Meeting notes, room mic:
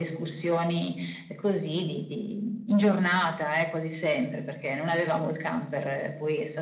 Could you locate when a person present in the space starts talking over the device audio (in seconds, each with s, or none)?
none